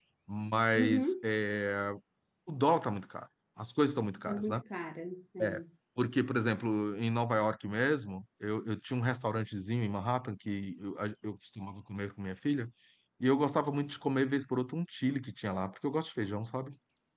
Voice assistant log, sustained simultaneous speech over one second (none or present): none